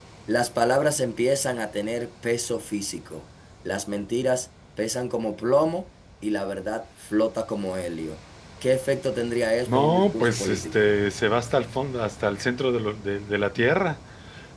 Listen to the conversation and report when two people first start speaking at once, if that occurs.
9.7 s

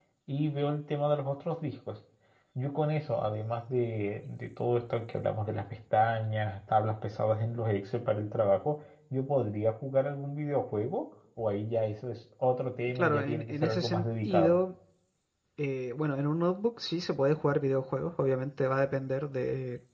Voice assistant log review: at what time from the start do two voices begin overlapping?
12.9 s

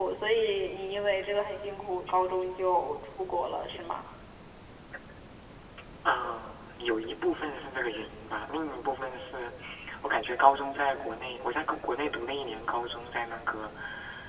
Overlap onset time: none

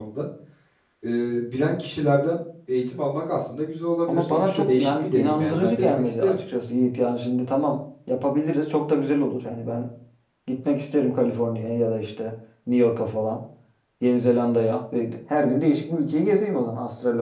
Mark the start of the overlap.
4.1 s

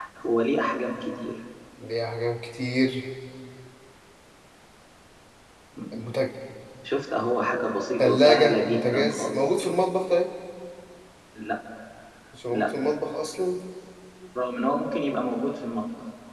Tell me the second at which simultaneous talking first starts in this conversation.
8.0 s

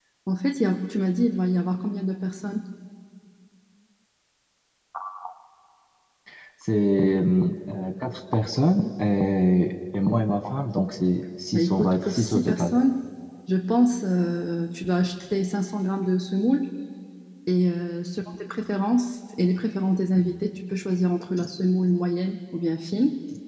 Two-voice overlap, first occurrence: 11.5 s

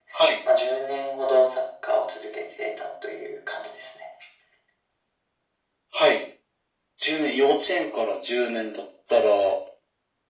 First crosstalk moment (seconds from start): none

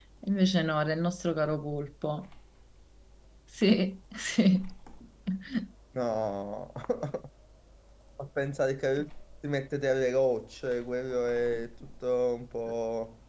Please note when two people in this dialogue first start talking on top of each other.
none

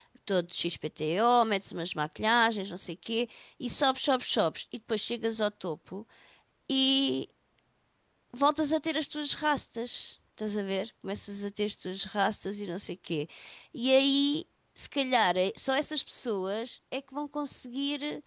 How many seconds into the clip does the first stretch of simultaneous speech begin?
none

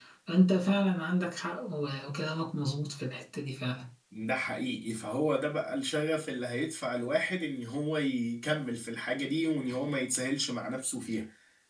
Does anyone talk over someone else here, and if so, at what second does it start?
none

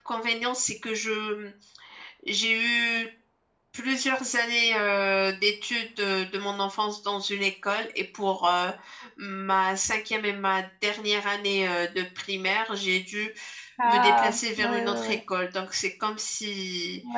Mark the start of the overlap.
13.8 s

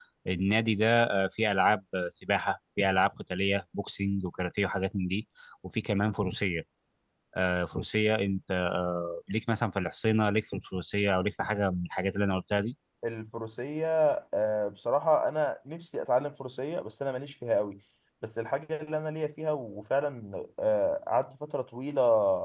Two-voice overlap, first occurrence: none

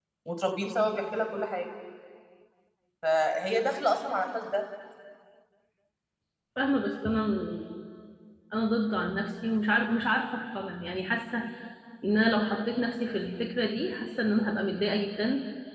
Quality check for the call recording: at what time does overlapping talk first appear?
none

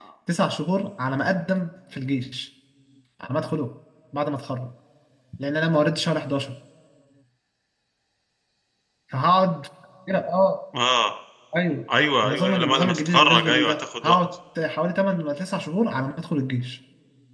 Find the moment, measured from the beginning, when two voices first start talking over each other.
12.2 s

